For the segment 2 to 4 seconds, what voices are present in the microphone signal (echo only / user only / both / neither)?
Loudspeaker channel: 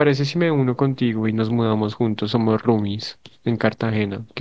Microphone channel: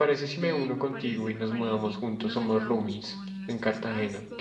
both